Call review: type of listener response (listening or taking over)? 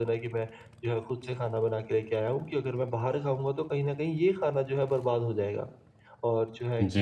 listening